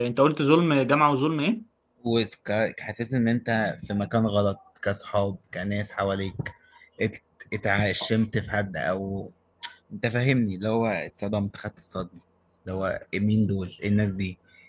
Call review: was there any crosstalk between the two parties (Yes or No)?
No